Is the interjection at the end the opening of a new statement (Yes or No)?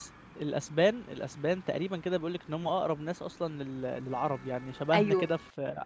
No